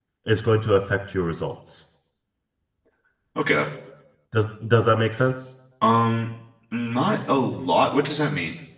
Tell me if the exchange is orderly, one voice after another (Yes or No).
Yes